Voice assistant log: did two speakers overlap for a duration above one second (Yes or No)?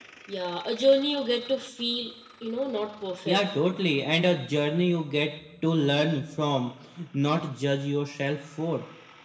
No